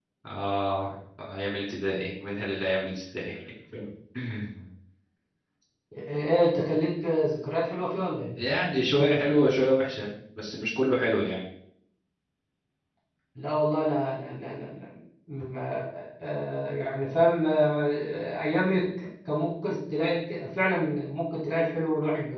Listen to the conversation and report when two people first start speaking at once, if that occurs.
none

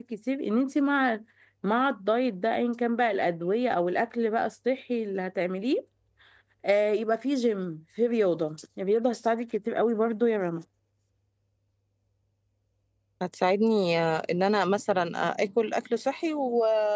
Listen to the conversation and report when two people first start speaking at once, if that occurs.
none

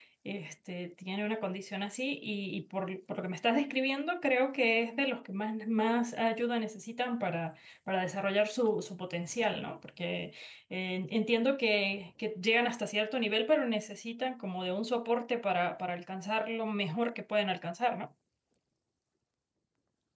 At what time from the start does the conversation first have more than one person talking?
none

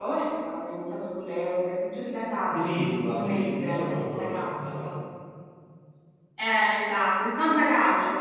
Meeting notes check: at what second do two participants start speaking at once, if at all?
2.5 s

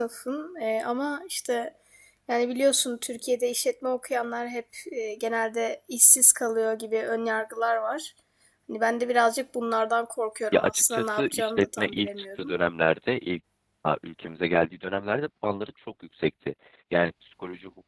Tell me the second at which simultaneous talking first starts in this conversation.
10.5 s

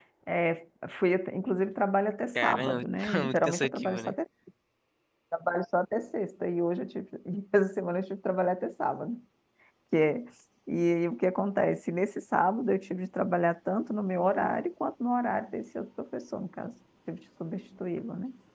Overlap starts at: 2.4 s

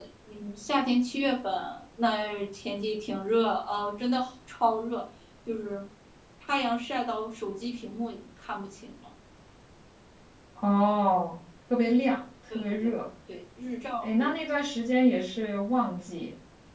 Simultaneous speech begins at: none

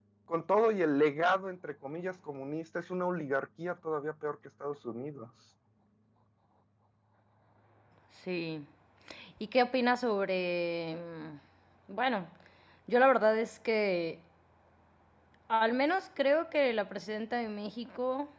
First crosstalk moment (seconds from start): none

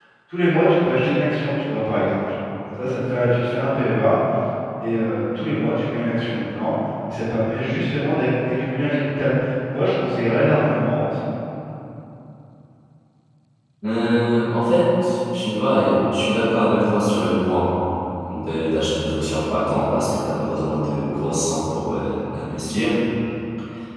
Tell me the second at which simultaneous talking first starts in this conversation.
none

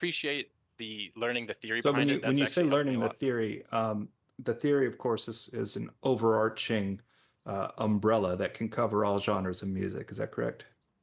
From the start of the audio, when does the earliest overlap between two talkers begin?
1.8 s

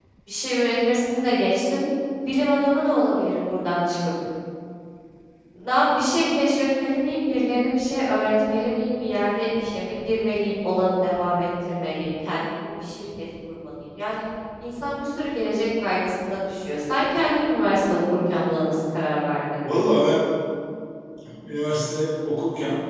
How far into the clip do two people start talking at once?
none

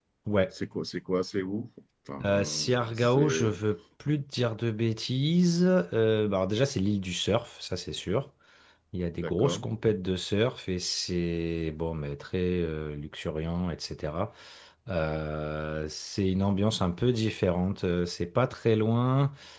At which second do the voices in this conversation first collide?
2.2 s

